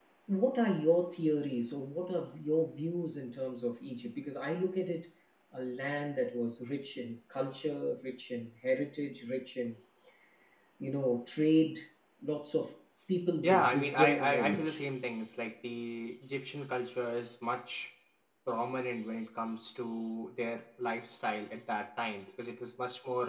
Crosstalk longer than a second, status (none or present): present